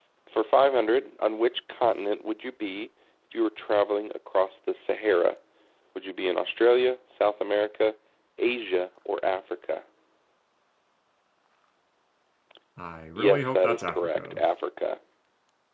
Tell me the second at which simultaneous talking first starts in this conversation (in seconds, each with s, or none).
13.2 s